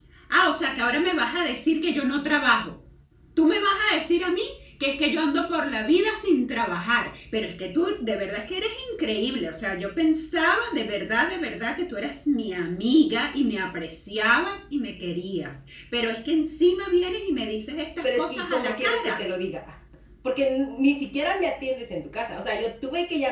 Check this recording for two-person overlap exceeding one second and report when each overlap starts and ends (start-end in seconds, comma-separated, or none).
18.0-19.2